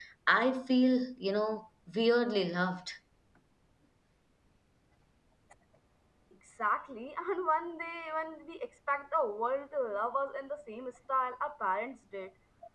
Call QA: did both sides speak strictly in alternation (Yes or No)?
Yes